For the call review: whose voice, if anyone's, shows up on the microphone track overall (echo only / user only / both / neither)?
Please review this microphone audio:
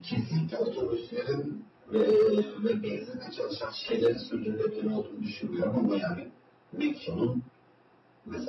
echo only